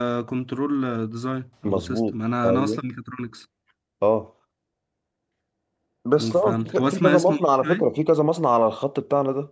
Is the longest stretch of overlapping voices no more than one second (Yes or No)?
No